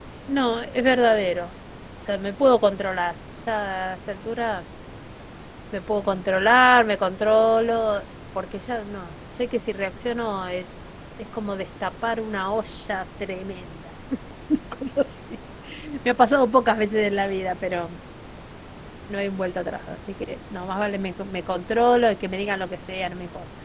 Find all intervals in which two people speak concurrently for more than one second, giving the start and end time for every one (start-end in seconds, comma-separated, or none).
none